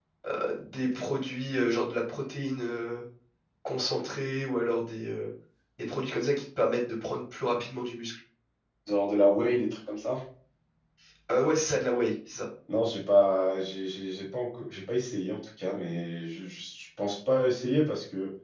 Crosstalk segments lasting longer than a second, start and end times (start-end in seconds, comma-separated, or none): none